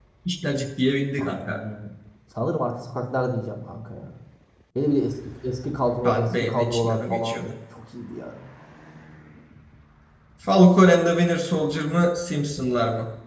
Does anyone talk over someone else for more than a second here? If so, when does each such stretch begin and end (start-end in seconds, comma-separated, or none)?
6.0-7.4